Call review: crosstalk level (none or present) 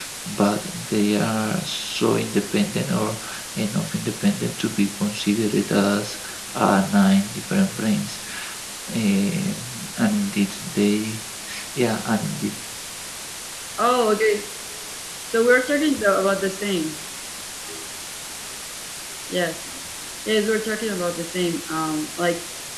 none